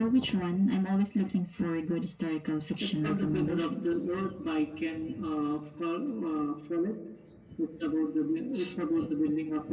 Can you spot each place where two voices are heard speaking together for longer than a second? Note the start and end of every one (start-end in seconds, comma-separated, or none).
2.8-4.2